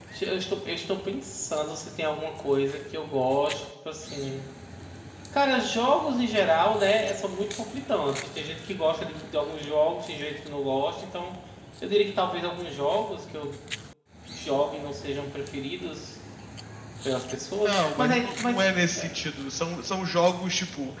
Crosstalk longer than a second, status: present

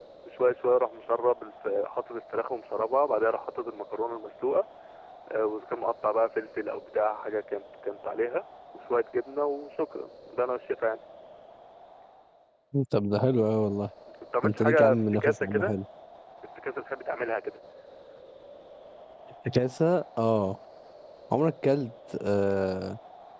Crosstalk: present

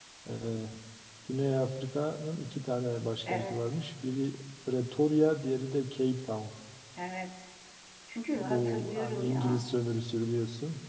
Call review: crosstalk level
present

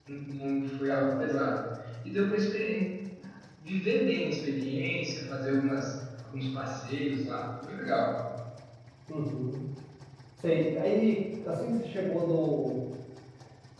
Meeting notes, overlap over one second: none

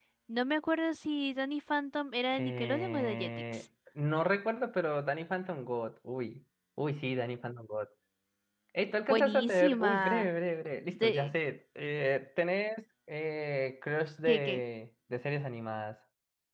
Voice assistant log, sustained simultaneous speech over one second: present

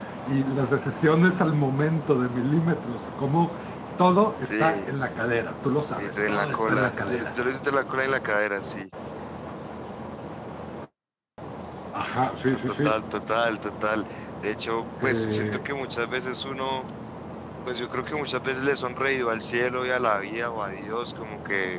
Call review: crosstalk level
present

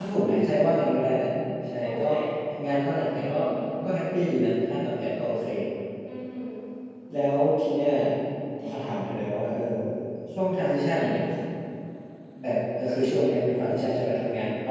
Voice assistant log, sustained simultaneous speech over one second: none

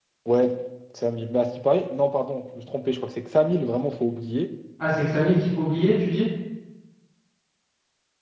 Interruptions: none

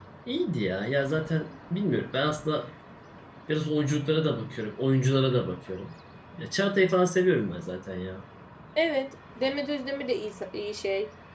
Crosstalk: none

